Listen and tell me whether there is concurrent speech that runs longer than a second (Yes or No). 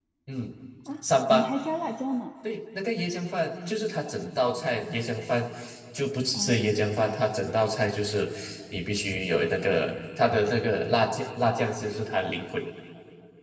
No